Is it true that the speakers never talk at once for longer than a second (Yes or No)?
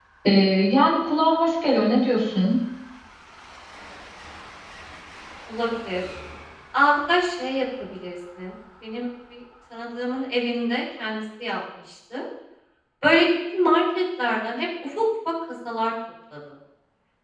Yes